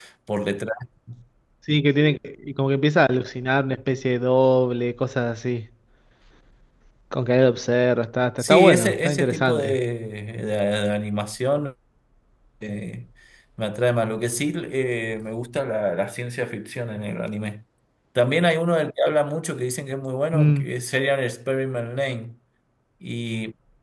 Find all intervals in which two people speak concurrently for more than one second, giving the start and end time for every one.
8.4-9.8

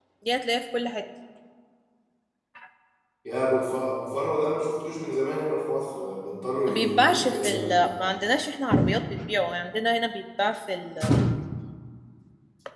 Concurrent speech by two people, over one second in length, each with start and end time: 6.7-7.9

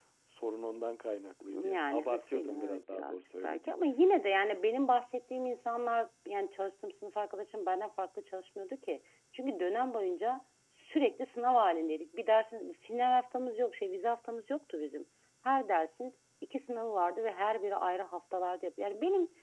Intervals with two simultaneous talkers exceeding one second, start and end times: 1.6-3.6

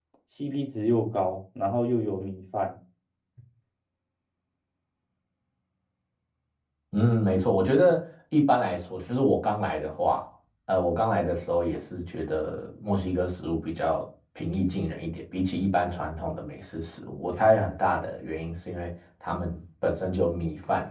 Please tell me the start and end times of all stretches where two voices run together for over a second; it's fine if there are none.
none

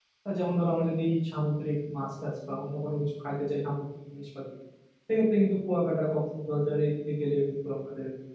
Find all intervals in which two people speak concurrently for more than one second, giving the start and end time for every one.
none

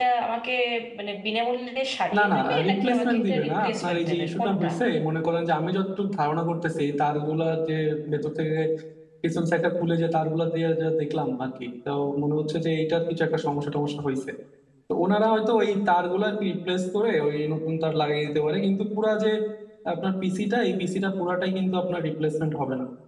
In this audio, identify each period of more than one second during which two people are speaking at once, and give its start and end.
2.2-4.7

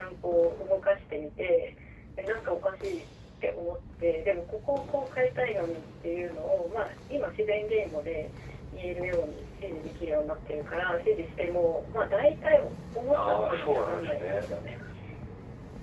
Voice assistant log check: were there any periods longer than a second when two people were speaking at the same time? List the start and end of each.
13.1-14.5

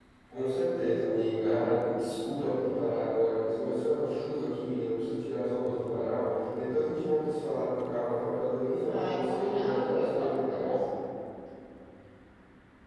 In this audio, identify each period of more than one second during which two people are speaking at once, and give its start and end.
8.8-10.7

